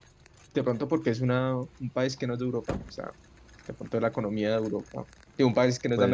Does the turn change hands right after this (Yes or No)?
No